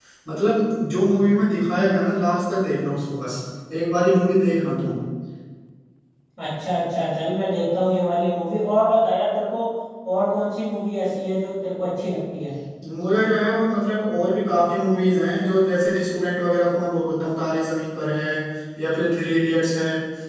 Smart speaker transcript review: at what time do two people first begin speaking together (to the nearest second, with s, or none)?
none